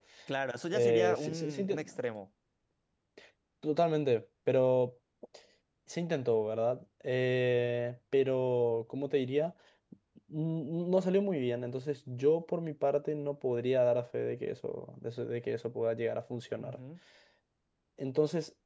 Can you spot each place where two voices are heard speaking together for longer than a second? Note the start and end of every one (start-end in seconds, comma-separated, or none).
0.7-2.0